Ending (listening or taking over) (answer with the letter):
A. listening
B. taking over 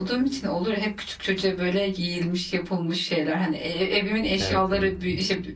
A